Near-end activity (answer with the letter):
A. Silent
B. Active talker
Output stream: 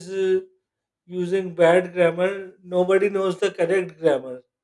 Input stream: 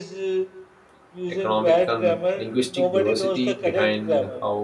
B